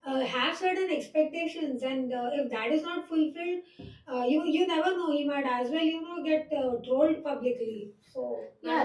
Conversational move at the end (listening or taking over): taking over